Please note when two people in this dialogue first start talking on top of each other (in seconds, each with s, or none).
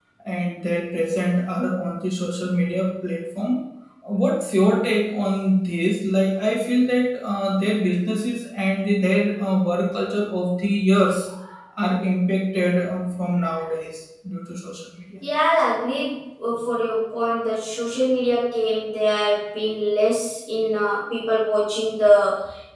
none